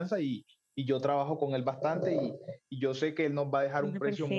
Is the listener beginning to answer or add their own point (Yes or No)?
No